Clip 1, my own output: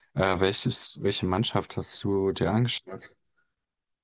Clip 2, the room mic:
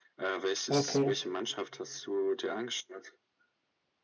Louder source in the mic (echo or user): user